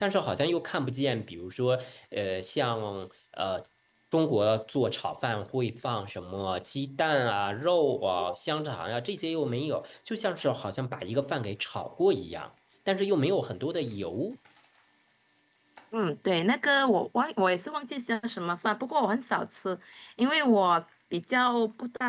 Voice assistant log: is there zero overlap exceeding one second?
Yes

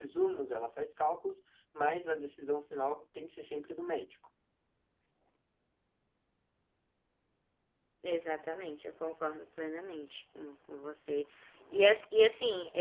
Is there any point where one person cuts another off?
No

